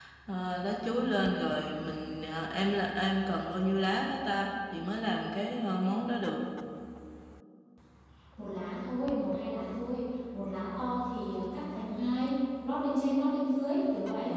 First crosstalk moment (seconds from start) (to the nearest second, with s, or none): none